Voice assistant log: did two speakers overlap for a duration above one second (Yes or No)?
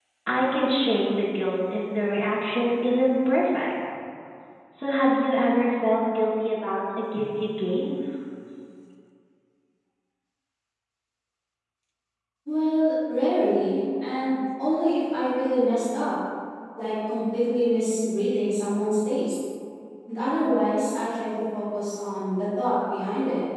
No